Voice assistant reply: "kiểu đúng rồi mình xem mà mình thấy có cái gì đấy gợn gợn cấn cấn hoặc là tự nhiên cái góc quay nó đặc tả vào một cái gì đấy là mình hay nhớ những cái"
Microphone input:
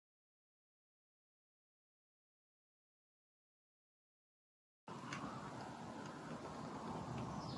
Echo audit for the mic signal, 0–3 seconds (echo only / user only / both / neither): neither